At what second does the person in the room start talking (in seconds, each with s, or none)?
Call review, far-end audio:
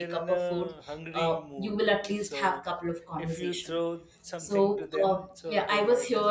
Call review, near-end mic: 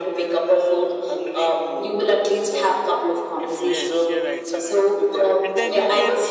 3.6 s